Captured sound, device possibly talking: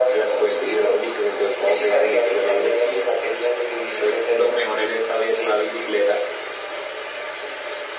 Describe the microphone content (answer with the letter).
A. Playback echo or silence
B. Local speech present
A